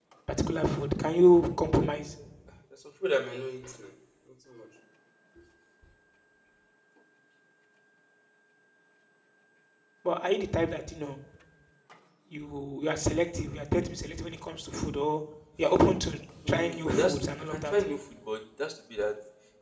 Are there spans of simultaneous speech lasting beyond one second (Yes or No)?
Yes